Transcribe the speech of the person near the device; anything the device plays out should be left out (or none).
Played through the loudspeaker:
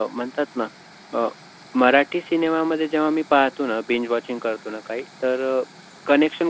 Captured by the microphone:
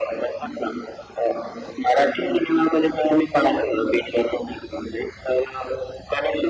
none